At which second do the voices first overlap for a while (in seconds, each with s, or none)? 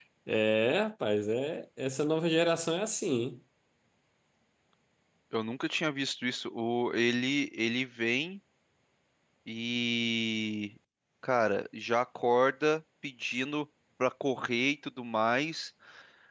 none